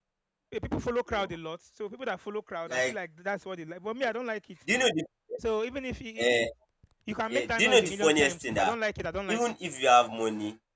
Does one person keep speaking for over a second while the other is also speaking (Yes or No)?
Yes